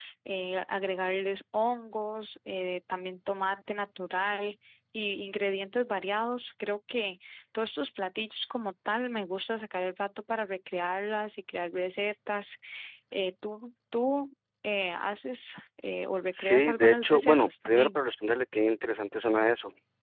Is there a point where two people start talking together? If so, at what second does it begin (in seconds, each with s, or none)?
16.3 s